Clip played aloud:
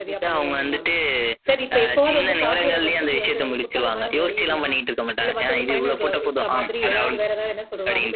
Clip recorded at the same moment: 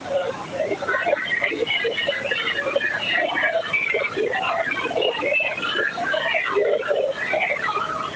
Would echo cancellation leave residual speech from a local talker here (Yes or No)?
No